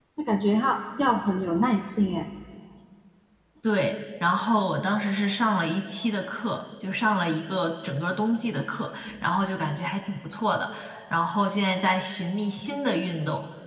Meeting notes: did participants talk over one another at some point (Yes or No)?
No